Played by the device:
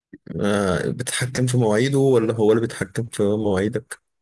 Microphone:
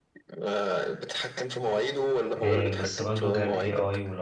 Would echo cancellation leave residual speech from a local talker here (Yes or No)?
Yes